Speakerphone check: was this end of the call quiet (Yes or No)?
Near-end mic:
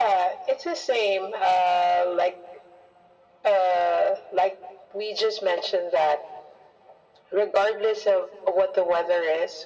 Yes